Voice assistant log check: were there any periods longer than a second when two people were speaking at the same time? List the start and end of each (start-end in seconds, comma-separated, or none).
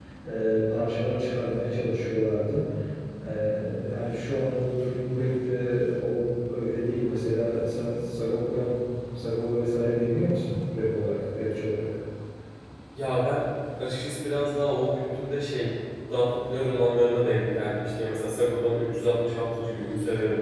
none